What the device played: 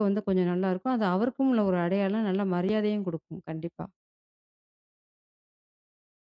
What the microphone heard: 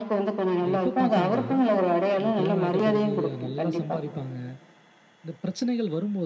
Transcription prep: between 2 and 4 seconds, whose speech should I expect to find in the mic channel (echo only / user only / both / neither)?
both